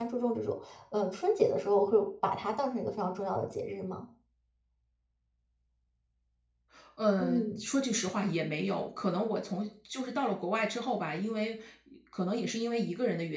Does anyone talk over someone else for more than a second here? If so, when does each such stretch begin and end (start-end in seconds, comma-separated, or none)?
none